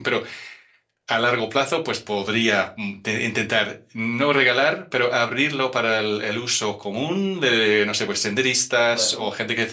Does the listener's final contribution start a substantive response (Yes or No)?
No